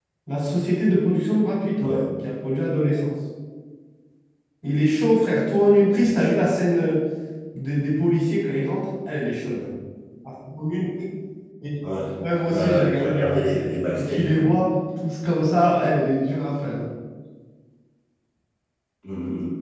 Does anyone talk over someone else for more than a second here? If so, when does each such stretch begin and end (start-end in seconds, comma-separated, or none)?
12.4-14.4